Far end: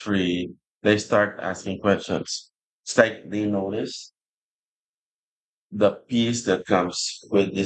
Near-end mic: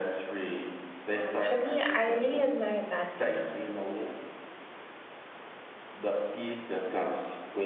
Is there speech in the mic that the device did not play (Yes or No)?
Yes